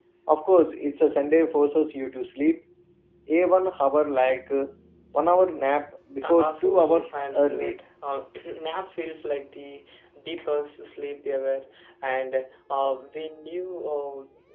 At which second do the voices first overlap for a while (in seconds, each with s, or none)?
6.2 s